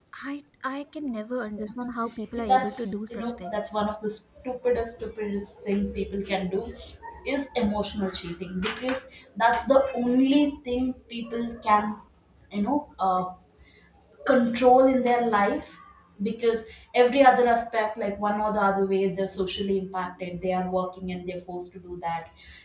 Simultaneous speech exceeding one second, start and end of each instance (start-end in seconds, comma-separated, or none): 2.5-3.8